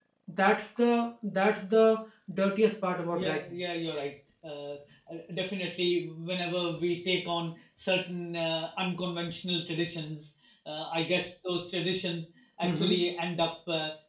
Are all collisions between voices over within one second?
Yes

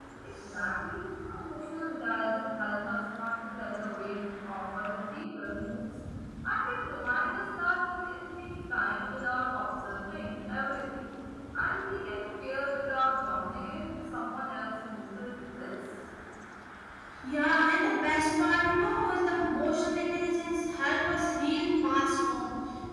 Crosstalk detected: No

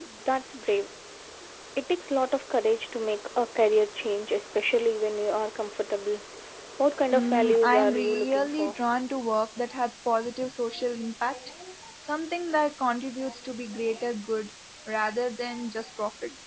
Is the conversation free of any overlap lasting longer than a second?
No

